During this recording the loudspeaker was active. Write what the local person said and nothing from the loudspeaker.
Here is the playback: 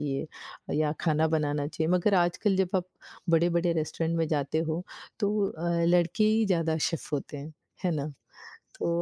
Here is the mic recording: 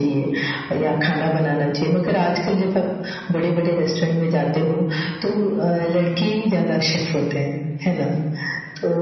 none

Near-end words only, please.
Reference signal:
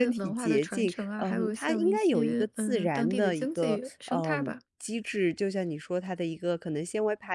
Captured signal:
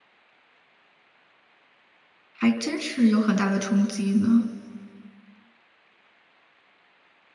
还真是有很大的冲击呢。

